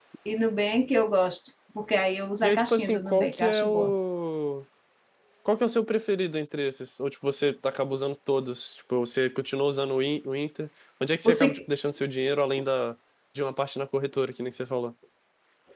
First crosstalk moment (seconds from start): 2.4 s

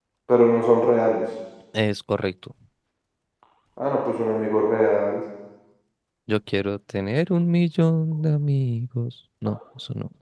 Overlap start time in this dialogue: none

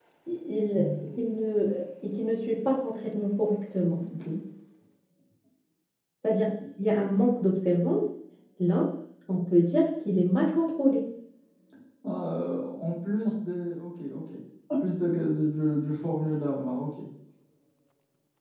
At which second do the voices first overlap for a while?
none

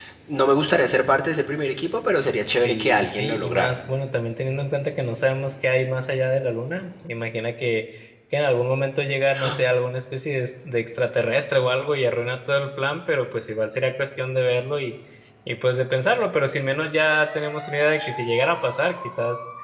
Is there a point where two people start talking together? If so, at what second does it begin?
2.5 s

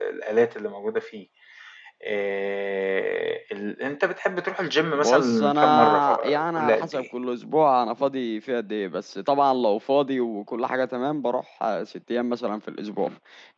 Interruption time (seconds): 5.0 s

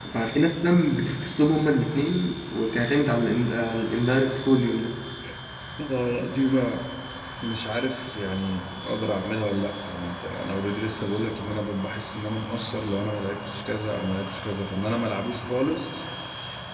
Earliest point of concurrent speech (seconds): none

